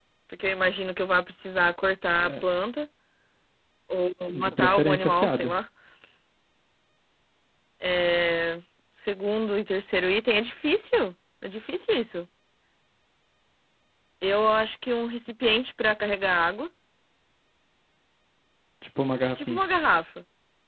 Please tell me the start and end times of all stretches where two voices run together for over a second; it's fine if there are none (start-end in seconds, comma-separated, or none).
4.3-5.5